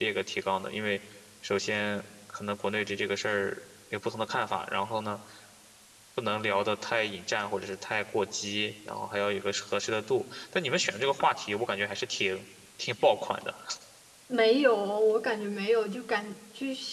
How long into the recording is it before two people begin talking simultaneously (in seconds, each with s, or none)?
none